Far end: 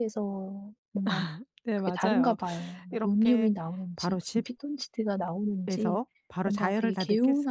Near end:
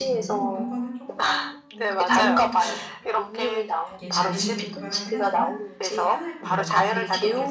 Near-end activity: present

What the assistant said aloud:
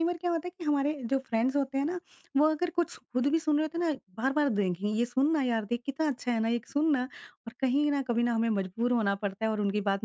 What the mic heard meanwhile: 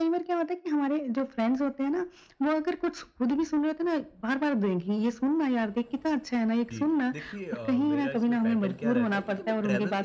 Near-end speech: present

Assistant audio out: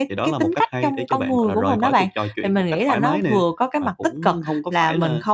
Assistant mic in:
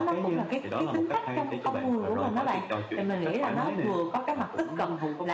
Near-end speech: none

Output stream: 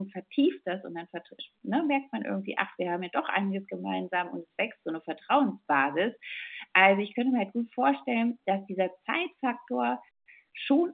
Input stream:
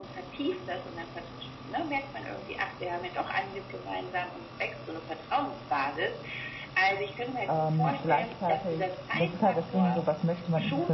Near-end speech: present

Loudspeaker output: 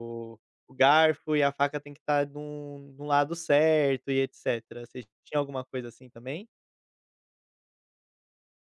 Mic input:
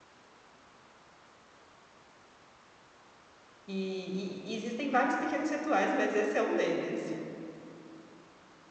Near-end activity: present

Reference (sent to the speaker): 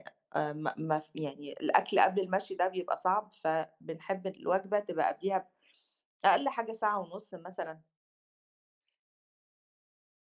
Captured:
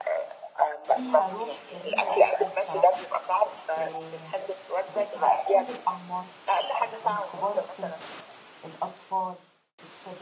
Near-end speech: present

